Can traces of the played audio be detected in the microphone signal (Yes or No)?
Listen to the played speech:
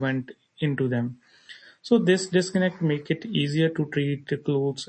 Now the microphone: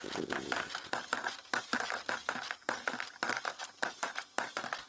No